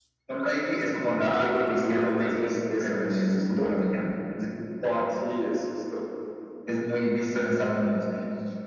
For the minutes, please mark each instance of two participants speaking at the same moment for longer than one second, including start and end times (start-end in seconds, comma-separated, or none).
1.2-3.8